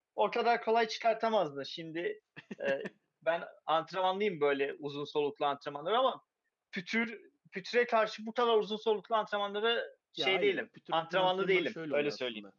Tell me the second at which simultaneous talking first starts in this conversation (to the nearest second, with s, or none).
10 s